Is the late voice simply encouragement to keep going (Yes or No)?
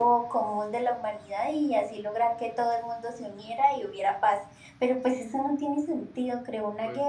Yes